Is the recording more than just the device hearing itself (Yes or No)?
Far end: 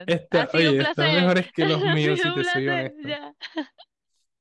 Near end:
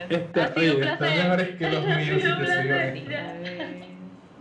Yes